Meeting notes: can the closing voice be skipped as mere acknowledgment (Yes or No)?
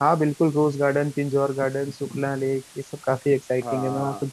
No